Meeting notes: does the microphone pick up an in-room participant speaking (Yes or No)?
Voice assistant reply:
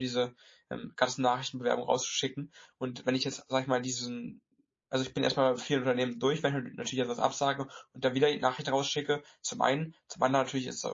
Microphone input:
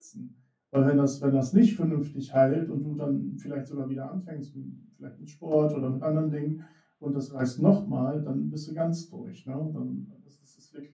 Yes